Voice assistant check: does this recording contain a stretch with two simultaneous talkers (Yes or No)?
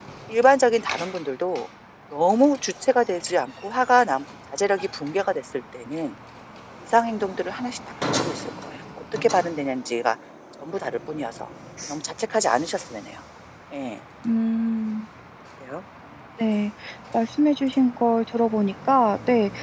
No